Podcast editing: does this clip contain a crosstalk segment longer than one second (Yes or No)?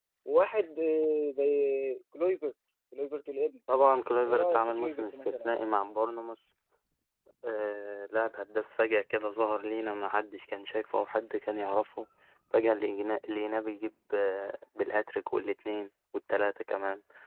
Yes